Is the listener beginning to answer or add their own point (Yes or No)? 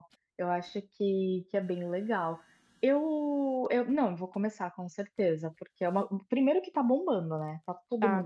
Yes